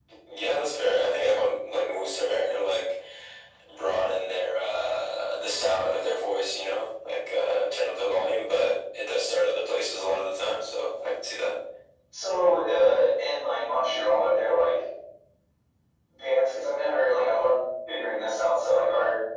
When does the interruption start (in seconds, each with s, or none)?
none